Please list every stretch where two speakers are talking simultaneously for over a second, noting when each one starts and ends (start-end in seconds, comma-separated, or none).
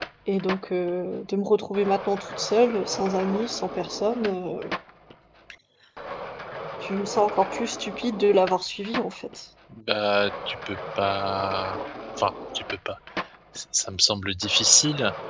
none